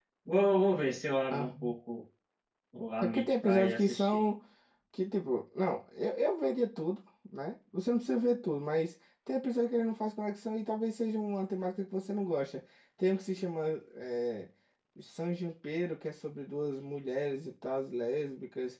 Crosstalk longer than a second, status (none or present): present